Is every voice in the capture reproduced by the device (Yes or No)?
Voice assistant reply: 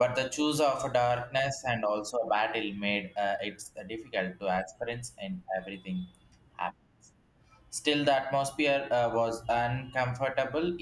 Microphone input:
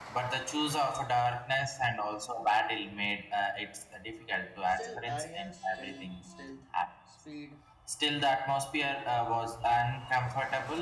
No